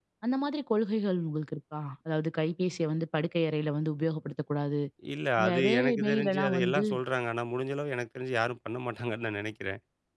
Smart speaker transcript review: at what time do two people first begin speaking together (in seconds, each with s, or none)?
5.5 s